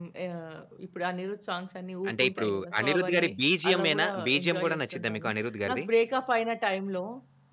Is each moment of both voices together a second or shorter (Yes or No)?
No